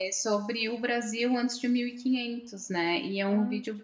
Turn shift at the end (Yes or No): No